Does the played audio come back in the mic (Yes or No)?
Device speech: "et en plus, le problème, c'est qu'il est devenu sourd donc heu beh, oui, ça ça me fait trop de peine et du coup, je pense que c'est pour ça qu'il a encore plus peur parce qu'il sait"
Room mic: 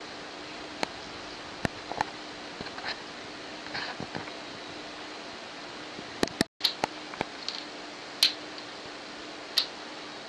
No